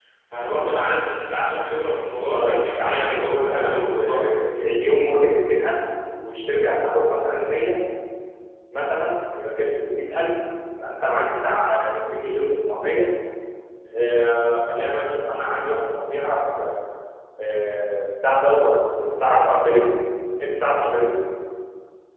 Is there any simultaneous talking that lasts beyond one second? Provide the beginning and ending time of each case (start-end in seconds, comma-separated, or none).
2.3-4.3